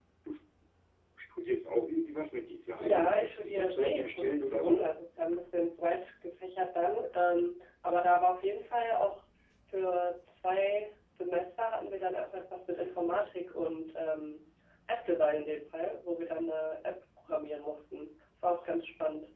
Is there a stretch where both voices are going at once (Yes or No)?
Yes